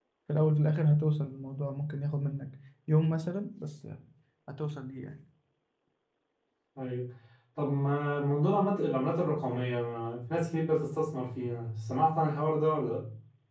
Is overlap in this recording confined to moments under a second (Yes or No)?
Yes